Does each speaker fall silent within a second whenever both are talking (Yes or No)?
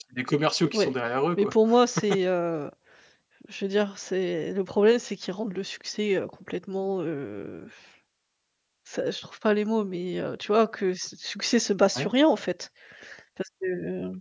Yes